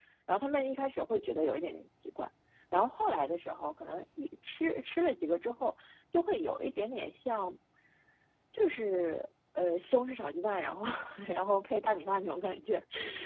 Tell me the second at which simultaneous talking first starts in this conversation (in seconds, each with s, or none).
none